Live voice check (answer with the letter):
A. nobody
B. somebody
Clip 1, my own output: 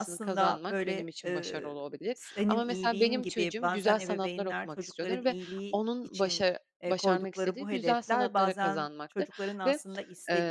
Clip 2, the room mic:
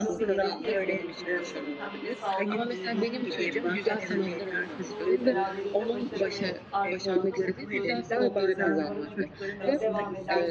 B